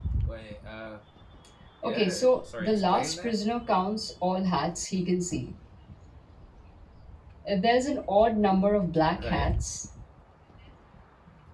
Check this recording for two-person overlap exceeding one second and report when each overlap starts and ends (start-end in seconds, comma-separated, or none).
1.8-3.3